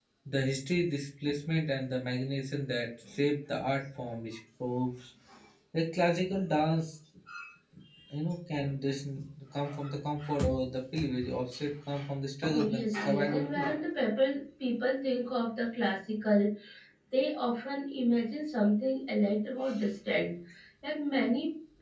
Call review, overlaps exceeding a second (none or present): present